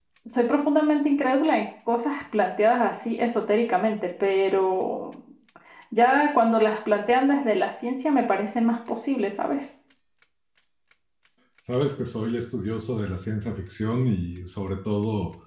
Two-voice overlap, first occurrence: none

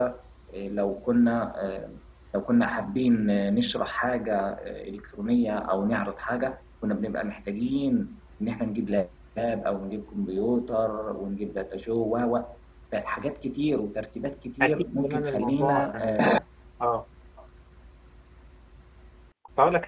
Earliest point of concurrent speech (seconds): 14.6 s

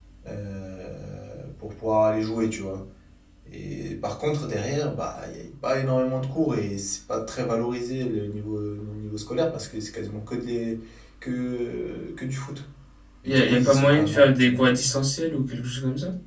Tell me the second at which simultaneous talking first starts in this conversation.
13.2 s

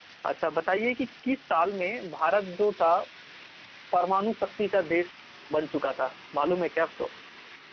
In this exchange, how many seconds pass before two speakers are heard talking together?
none

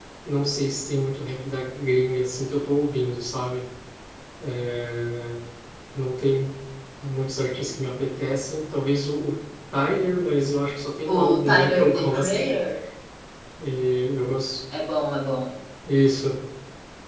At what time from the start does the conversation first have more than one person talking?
11.1 s

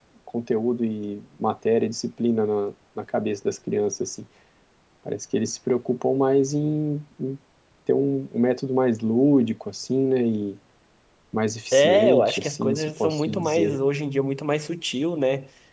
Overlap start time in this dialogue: 11.7 s

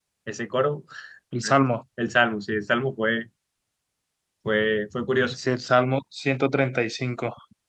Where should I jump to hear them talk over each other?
none

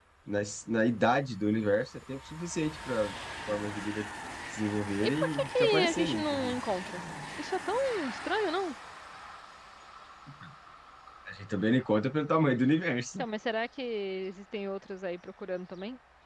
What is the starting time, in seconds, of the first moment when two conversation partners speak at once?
5.0 s

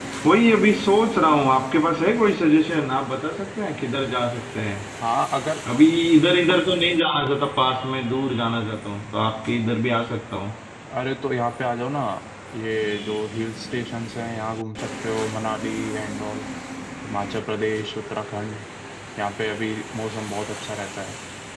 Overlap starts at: none

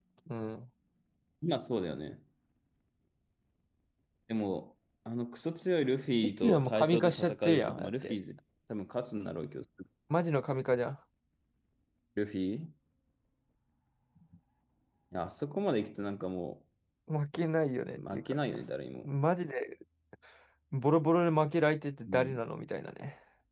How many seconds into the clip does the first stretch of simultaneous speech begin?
6.2 s

